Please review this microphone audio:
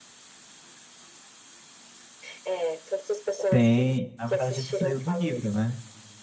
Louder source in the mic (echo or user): user